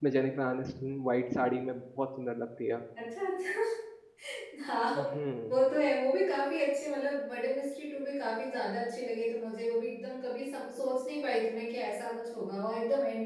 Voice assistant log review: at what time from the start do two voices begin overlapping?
none

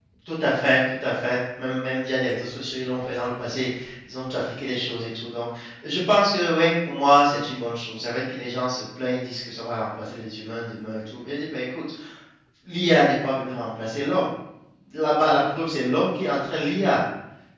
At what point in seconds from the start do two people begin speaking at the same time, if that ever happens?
none

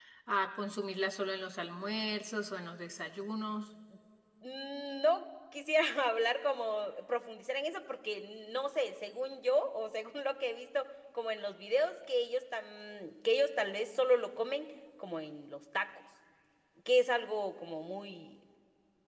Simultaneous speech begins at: none

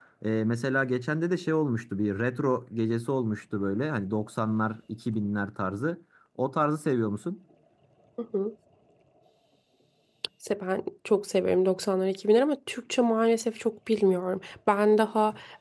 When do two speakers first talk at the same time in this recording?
none

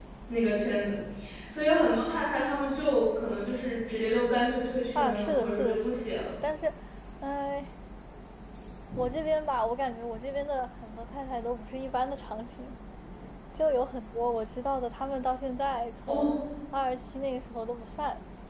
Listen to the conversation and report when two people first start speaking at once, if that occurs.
5.0 s

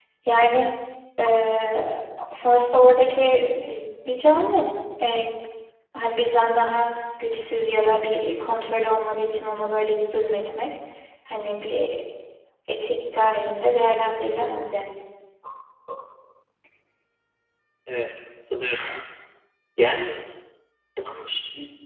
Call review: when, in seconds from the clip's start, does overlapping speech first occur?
none

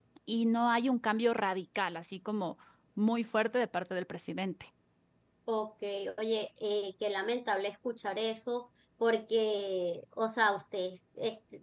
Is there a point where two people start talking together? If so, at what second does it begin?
none

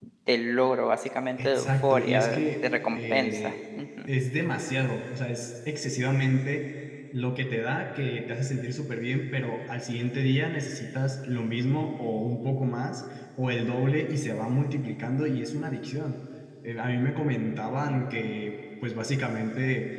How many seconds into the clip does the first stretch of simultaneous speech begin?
1.4 s

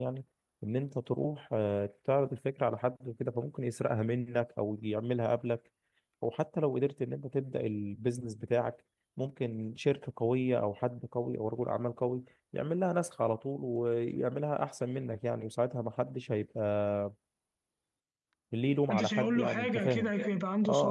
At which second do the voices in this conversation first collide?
18.9 s

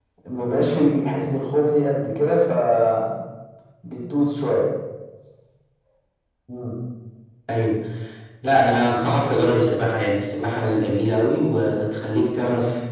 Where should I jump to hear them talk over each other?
none

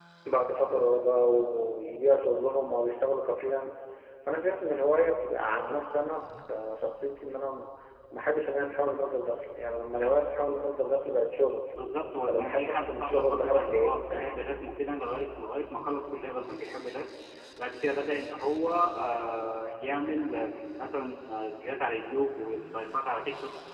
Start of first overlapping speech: 12.3 s

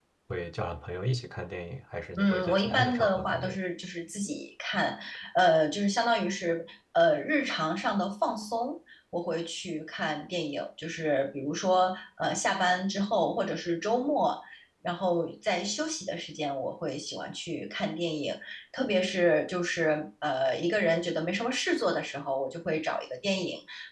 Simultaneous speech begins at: 2.2 s

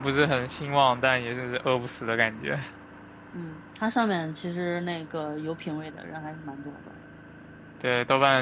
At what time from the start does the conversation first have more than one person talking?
none

